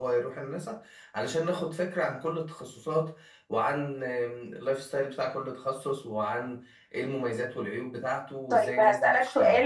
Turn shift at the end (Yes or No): Yes